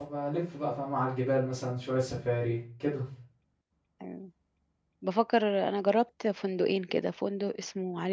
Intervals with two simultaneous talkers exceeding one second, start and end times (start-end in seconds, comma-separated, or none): none